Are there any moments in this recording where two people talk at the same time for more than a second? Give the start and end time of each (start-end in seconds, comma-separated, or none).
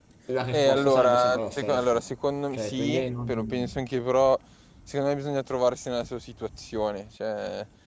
0.5-2.0, 2.5-3.8